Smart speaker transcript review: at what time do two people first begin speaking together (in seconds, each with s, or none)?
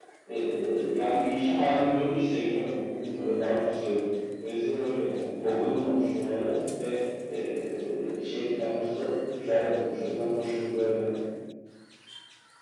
none